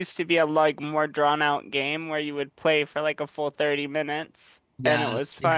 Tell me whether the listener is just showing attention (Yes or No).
No